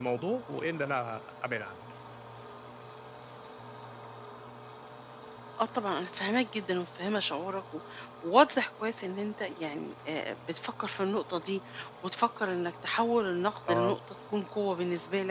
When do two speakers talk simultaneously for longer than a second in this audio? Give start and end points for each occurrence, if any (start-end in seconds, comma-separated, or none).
none